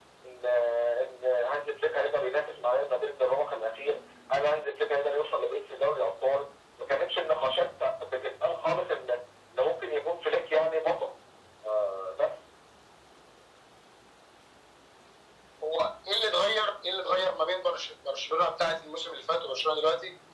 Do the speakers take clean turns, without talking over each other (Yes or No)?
Yes